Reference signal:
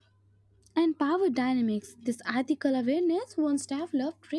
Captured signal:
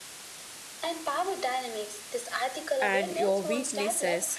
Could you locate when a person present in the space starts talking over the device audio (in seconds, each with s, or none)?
2.8 s